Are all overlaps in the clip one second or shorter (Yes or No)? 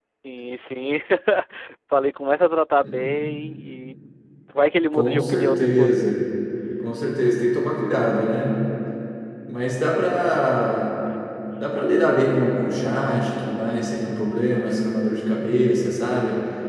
No